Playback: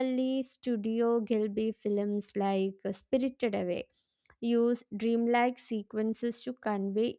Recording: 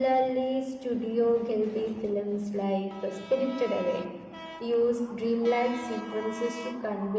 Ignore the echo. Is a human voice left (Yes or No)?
No